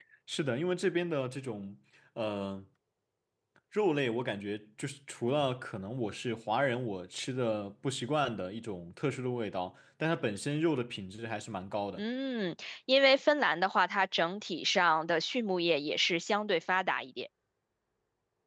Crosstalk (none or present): none